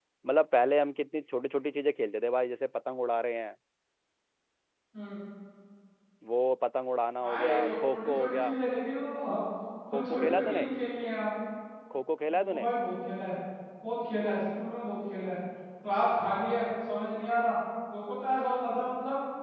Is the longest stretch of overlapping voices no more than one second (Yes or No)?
No